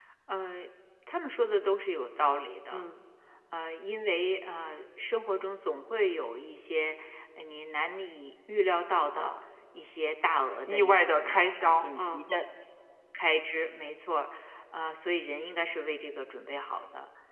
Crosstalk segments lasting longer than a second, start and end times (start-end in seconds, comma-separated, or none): 10.6-12.2